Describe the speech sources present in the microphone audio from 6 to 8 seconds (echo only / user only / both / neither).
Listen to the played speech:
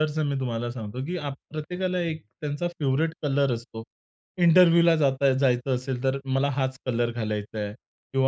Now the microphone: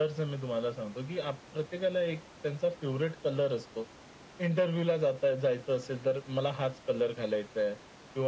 echo only